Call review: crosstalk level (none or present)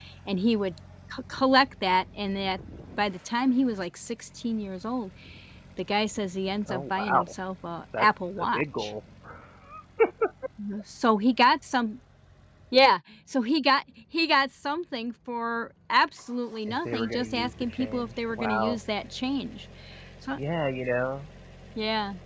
present